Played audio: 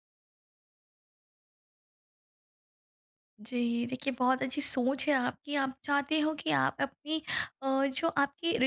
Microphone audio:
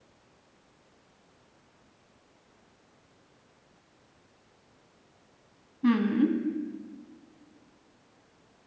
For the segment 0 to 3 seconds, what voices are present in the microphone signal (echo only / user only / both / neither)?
neither